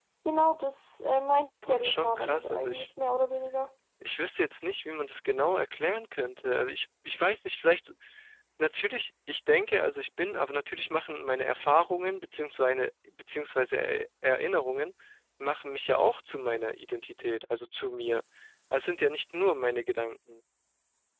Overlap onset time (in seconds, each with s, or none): 1.6 s